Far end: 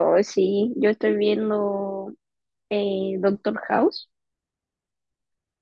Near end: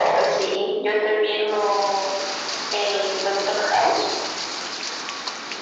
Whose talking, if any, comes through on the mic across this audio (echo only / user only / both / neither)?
echo only